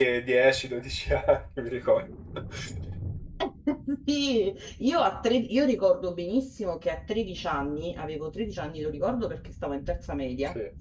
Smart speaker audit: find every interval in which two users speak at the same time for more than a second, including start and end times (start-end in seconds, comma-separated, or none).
none